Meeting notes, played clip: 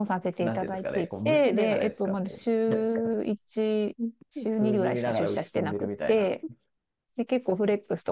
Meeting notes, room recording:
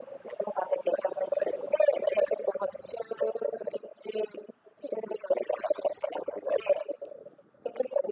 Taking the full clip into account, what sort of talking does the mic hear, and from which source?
echo only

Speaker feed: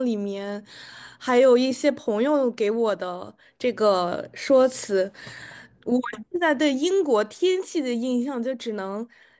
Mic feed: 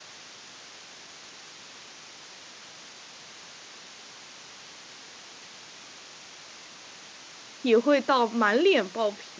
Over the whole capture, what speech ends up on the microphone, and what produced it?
user only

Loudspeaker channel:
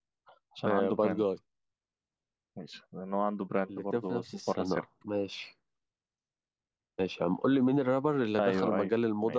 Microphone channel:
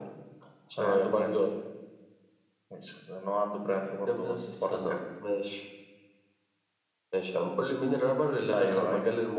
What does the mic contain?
echo only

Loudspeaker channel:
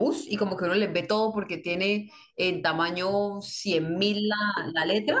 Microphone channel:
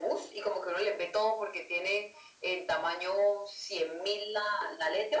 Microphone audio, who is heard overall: echo only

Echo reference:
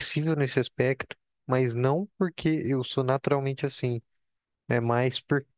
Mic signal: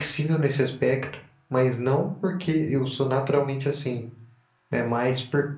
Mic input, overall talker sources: echo only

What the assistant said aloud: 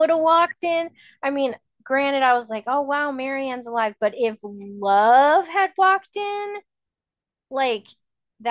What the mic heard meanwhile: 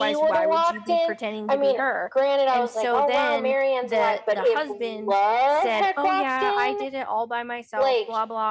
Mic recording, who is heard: both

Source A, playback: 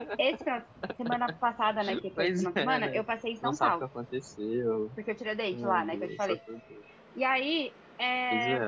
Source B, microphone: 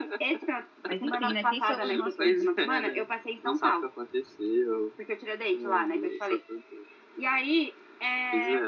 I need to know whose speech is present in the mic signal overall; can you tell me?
both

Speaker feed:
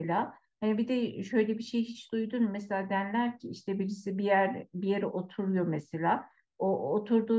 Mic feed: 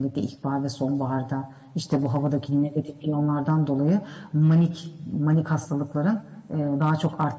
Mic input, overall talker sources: user only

